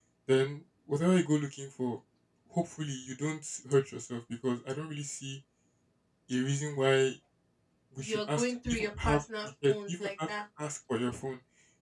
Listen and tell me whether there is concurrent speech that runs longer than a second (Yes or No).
Yes